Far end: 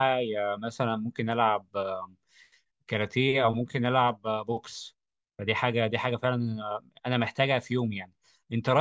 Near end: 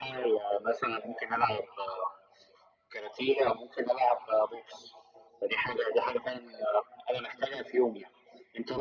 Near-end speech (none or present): none